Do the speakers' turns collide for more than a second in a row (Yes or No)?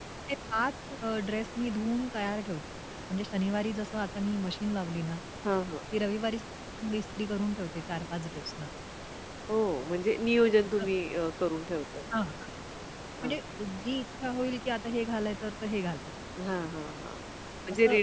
No